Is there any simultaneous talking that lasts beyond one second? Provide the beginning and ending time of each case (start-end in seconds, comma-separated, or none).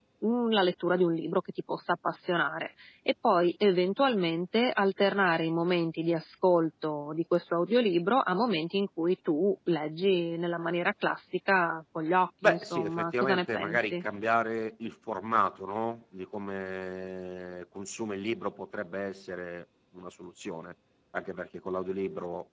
12.4-14.0